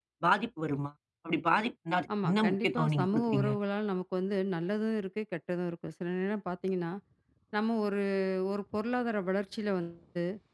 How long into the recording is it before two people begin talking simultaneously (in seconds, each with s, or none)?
2.1 s